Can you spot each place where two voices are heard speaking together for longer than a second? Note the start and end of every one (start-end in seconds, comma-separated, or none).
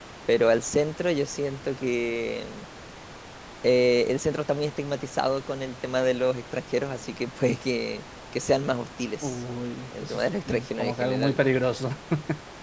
10.0-11.4